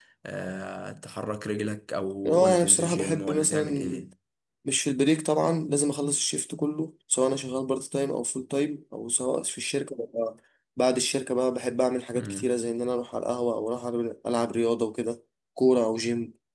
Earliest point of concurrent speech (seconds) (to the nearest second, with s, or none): 2 s